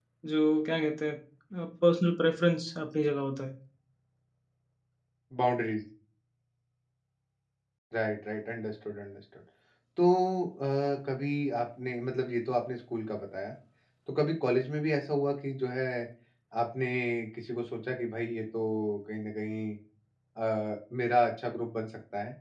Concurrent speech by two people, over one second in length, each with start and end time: none

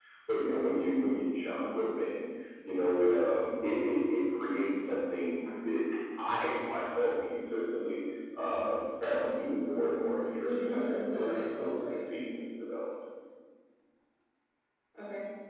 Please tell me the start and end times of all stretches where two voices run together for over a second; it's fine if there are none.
10.4-12.0

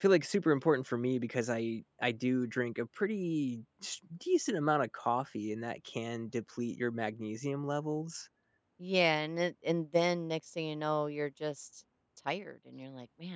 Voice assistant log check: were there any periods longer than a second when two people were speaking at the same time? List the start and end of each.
none

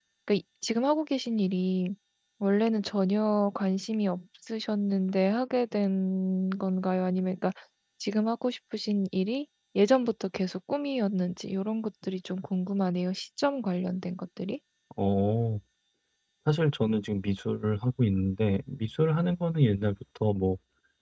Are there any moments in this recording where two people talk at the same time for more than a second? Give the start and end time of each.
none

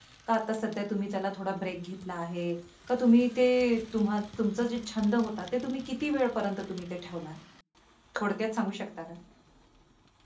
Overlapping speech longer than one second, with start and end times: none

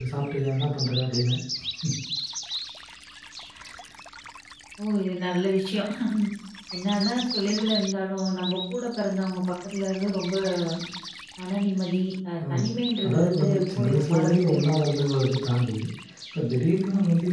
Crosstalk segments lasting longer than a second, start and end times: 13.1-14.7

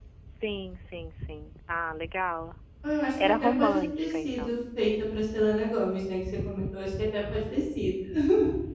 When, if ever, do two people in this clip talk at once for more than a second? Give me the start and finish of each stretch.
3.2-4.5

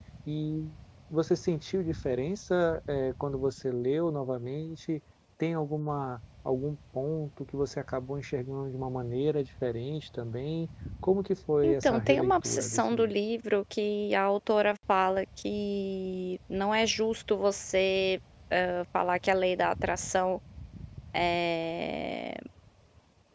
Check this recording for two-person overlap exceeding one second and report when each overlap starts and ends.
11.6-13.1

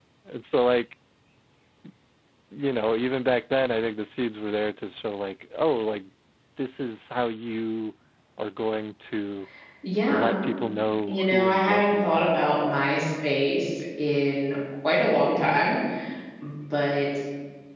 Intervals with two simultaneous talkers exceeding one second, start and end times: 11.1-12.4

